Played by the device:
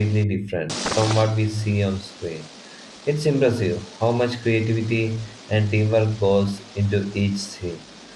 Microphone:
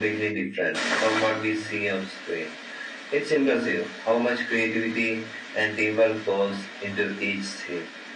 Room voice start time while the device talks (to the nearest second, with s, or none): none